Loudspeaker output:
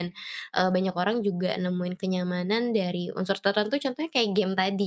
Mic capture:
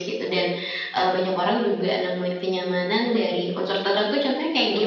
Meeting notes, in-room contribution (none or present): none